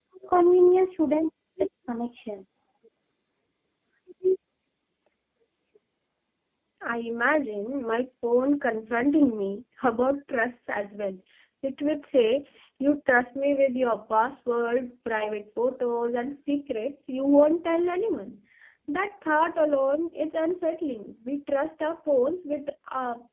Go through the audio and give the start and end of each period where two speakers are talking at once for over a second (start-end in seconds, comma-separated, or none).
none